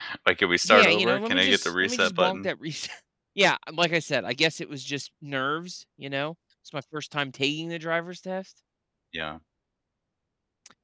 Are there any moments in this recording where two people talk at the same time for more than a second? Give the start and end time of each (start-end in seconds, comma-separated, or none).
0.7-2.5